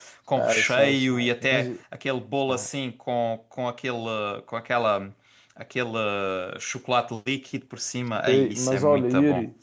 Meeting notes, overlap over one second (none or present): present